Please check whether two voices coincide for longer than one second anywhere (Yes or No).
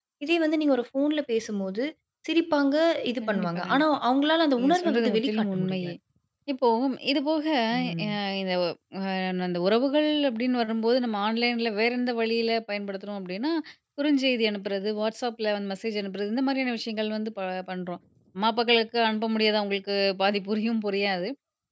Yes